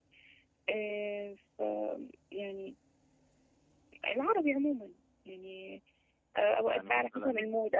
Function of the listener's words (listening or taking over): listening